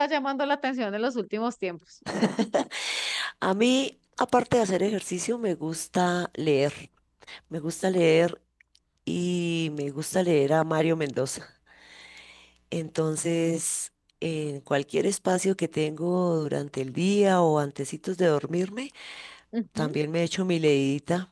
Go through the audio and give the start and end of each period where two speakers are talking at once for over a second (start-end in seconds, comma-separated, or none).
none